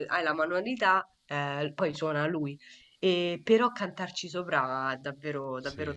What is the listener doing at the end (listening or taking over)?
taking over